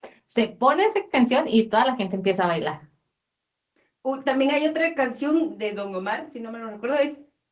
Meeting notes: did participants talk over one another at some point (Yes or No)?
No